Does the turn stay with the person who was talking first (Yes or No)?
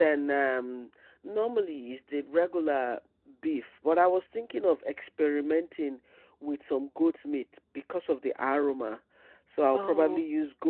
Yes